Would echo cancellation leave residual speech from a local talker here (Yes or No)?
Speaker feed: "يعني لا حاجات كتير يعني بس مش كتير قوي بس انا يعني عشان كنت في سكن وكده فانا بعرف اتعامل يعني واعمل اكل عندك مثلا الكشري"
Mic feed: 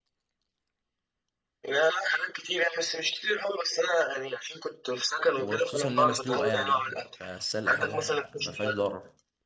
Yes